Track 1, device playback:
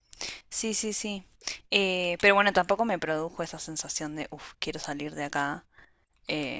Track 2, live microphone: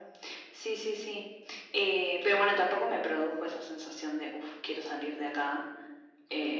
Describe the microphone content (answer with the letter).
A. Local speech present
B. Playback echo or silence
B